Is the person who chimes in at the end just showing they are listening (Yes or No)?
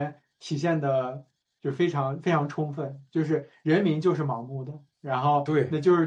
Yes